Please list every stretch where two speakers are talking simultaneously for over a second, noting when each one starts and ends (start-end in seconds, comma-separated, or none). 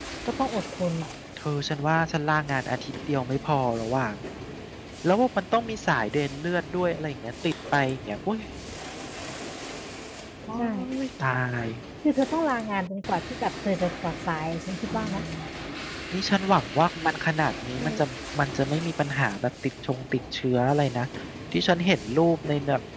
none